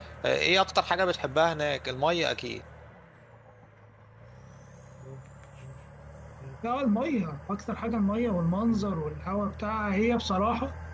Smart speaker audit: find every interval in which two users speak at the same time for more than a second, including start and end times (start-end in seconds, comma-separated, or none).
none